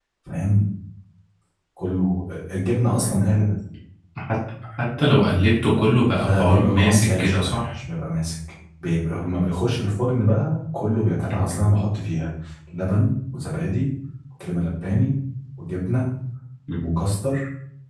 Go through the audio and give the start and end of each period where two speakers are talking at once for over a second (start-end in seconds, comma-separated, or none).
6.2-7.7